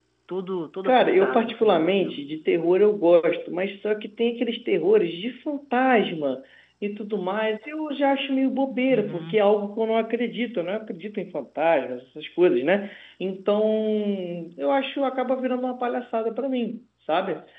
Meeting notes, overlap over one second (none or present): present